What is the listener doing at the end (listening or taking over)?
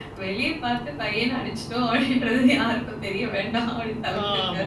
taking over